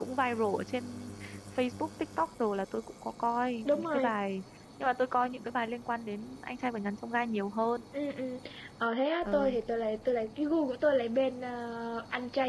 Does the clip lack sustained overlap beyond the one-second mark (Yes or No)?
Yes